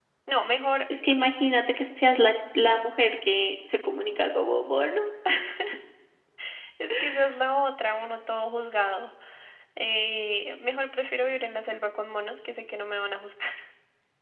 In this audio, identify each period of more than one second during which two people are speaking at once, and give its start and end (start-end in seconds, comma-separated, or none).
none